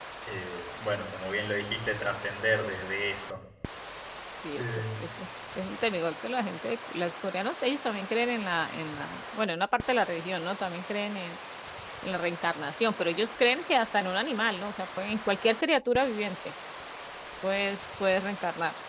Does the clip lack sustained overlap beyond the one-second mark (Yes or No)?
Yes